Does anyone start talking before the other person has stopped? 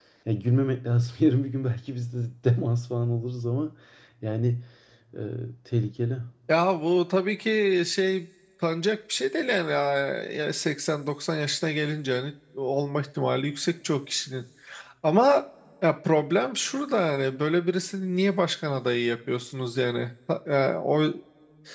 No

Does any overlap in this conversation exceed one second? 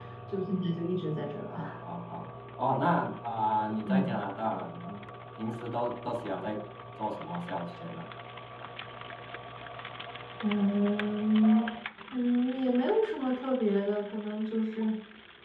No

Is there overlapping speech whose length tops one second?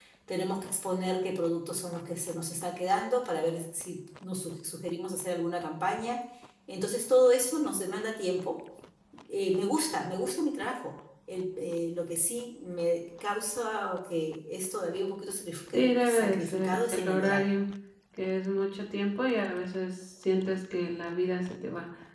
Yes, from 15.7 s

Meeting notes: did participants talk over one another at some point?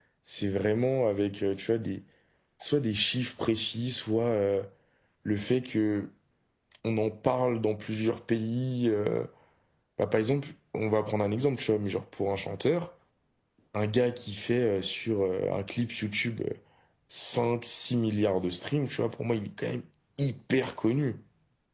No

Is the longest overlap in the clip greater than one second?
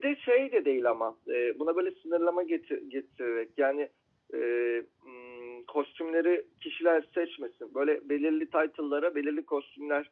No

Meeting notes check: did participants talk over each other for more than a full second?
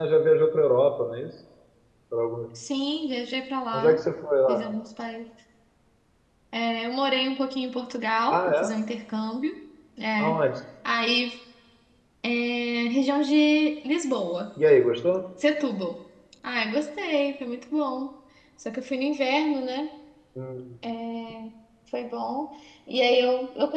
No

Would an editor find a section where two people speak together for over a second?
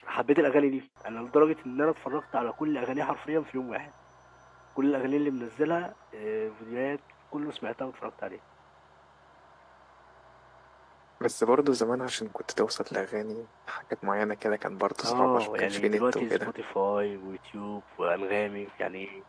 Yes, from 15.0 s

